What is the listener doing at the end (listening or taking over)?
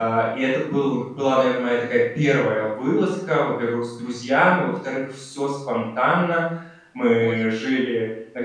listening